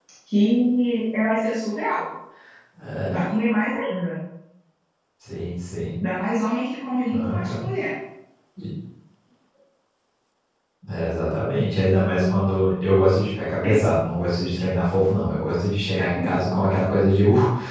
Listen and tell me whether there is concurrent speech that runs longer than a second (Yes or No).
No